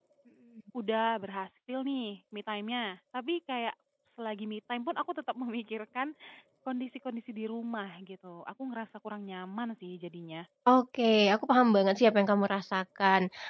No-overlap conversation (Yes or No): Yes